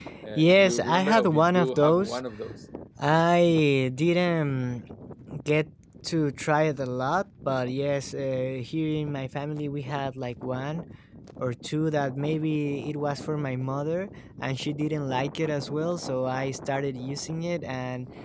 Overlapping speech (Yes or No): Yes